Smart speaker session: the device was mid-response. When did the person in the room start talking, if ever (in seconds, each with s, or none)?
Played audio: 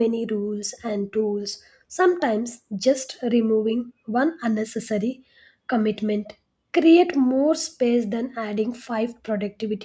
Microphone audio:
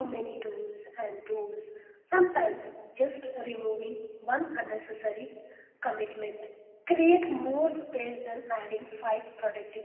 none